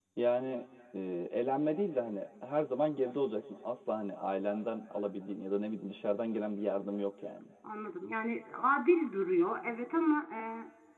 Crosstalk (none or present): none